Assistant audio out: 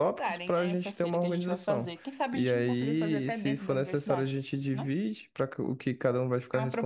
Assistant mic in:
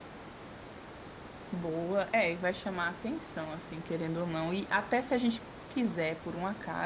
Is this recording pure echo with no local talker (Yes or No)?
No